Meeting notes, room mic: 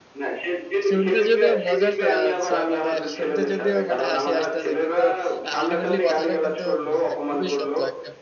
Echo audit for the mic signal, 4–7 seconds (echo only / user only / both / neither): both